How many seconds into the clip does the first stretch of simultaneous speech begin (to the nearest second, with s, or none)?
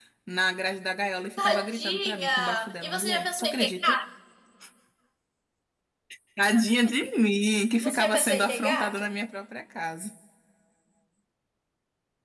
1 s